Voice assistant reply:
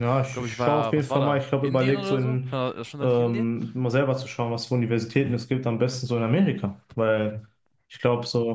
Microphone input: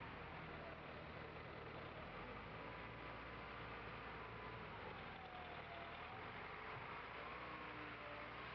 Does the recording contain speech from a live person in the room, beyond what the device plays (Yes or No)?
No